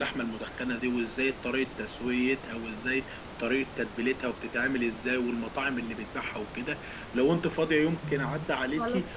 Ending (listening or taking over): listening